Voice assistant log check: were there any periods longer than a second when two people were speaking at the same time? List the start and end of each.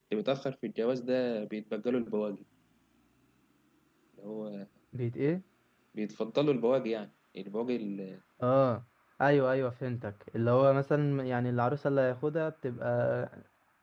none

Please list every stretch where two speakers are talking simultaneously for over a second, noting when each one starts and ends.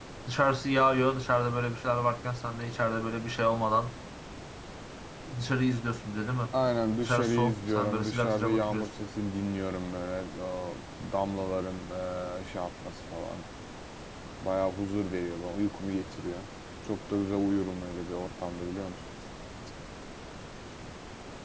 7.0-8.9

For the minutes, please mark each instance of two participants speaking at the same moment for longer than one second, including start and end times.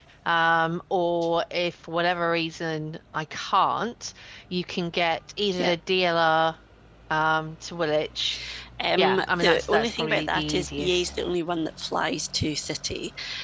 9.0-11.1

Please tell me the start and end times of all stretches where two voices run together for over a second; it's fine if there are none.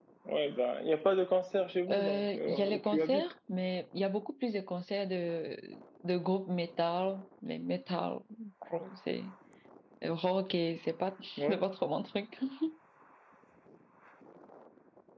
1.9-3.2

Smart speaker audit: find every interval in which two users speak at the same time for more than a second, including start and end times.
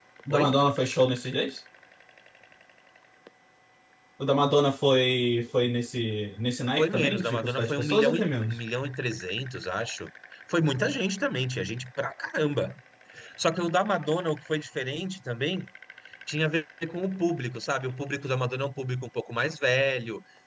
6.8-8.6

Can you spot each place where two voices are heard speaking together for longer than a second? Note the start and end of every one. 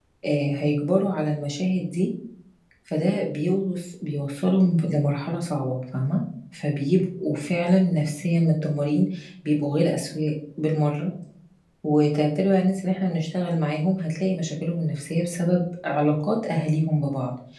none

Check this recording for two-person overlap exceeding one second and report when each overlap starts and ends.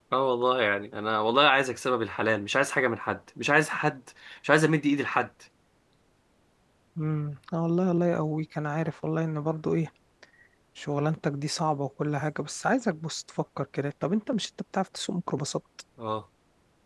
none

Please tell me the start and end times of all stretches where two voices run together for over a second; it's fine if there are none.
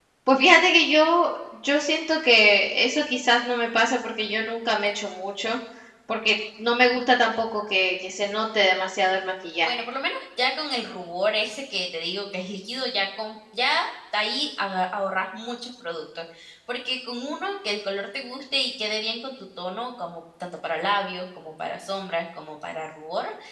none

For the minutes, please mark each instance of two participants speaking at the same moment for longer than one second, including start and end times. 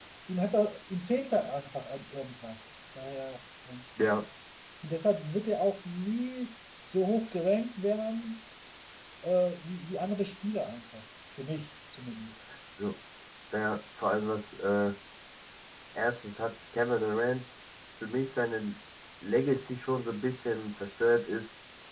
none

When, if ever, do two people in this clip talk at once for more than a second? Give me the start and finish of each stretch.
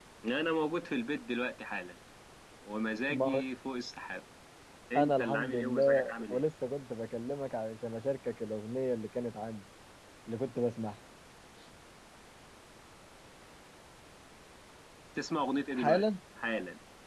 5.0-6.4

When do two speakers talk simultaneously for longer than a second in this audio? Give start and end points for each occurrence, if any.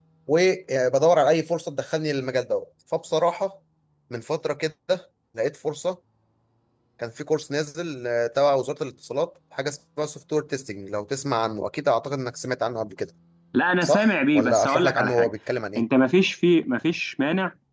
13.8-15.3

